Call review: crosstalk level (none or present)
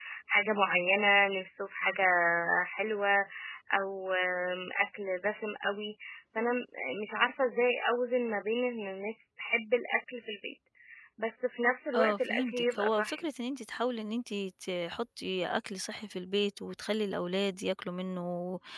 present